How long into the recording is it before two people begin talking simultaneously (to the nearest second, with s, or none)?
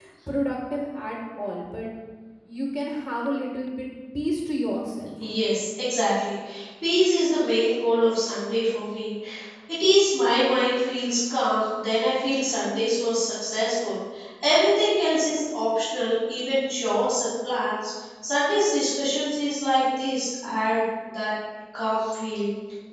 none